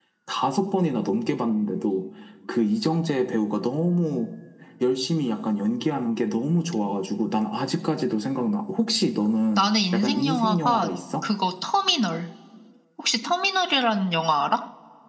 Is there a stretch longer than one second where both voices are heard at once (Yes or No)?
Yes